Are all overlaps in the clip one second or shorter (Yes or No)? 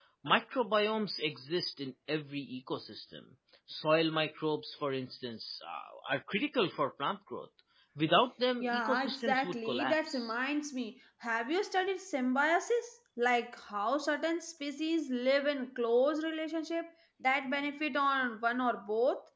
No